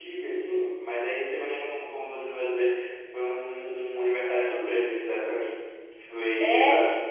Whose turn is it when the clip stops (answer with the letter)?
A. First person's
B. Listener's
A